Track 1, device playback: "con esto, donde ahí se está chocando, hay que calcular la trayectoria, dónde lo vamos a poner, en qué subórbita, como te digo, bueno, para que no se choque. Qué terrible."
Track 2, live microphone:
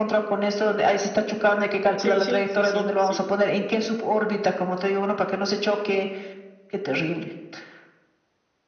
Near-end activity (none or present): present